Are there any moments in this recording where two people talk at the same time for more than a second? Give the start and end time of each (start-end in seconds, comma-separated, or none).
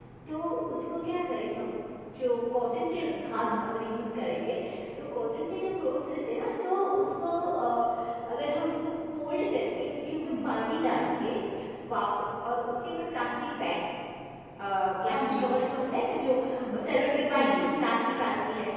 none